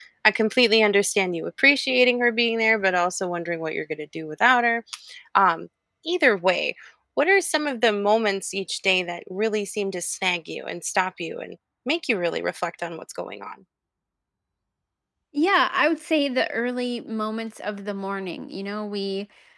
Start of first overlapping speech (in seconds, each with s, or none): none